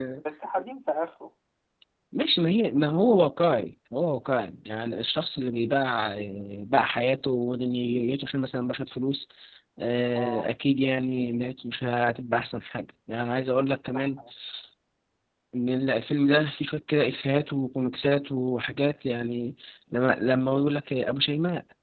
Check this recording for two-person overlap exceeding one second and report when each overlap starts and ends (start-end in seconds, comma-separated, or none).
none